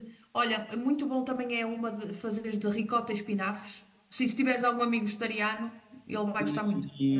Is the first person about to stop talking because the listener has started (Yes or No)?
Yes